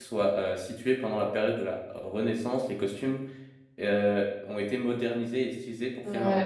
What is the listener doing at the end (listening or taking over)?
listening